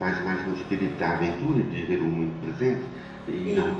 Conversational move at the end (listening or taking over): listening